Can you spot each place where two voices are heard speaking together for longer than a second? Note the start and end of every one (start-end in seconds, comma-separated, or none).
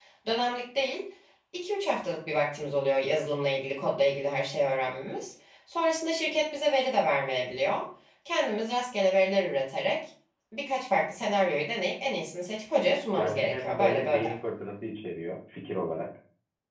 13.1-14.3